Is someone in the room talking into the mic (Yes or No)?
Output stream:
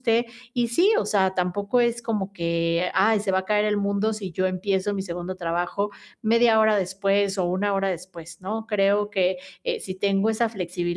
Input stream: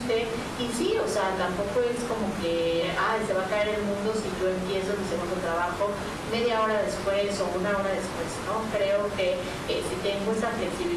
No